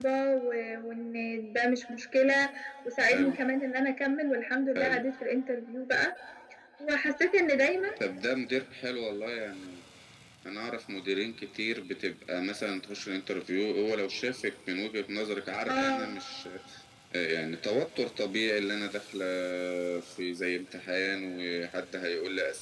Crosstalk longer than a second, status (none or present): none